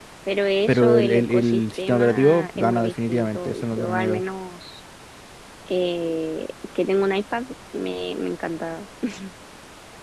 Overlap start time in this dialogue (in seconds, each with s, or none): 0.7 s